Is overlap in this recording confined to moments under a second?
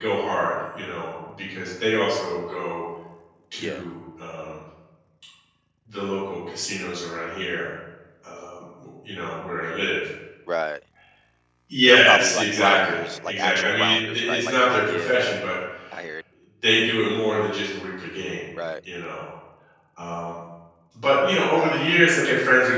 No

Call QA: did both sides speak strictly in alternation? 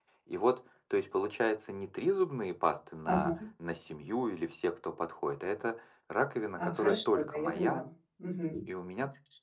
No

